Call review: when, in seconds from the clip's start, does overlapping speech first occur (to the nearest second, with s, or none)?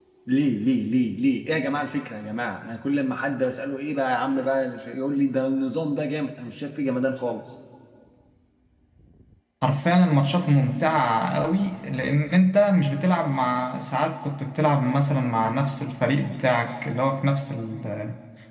none